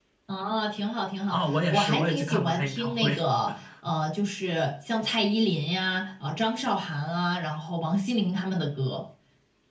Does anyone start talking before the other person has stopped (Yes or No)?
Yes